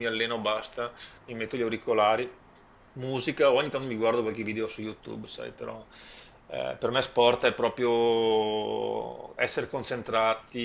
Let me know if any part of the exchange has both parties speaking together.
No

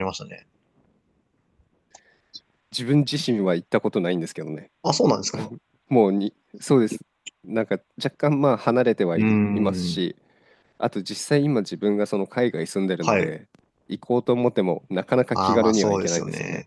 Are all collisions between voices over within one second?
No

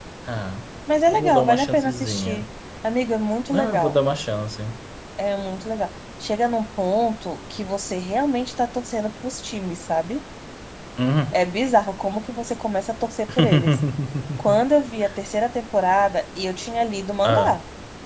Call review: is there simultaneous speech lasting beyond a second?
Yes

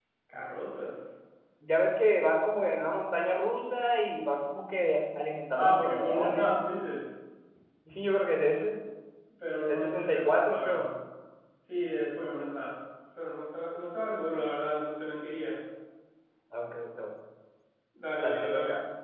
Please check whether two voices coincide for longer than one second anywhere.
Yes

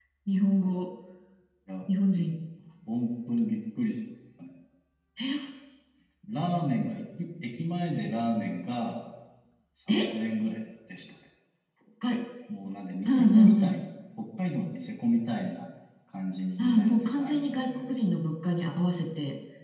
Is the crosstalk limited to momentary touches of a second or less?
No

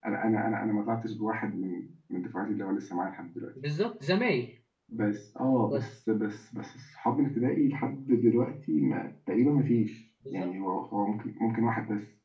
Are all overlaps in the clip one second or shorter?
Yes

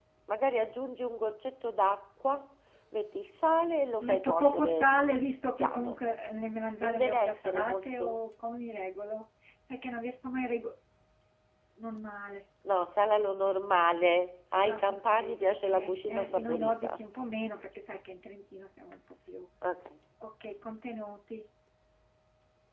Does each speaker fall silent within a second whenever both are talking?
No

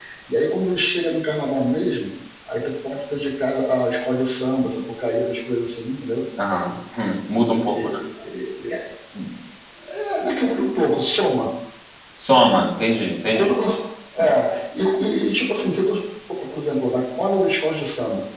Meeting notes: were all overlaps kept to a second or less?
Yes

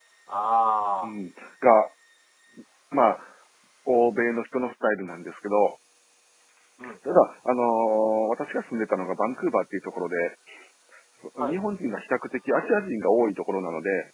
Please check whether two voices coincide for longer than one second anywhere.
No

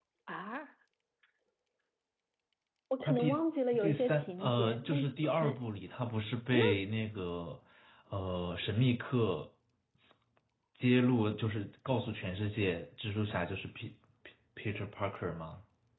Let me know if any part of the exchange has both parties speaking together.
Yes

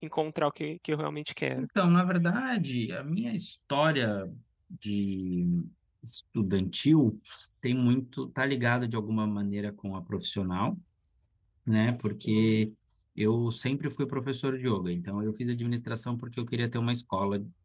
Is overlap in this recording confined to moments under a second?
Yes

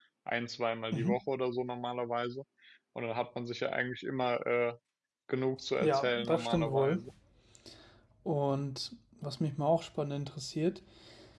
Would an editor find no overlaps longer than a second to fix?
No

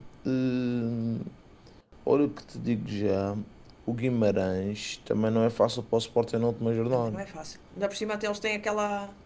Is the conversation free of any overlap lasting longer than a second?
Yes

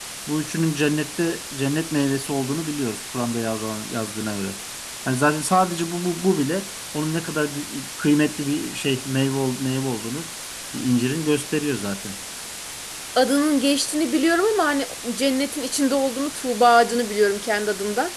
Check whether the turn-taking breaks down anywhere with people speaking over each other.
No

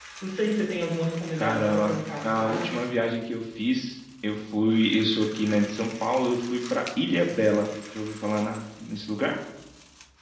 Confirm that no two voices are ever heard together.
No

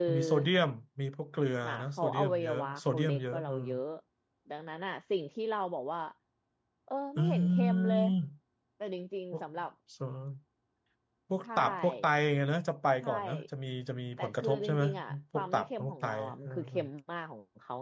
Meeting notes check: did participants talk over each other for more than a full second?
Yes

